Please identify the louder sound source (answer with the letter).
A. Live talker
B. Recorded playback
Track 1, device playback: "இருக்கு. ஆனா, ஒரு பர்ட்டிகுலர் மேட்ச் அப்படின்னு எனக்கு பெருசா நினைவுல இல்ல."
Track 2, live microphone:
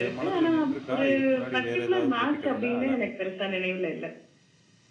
B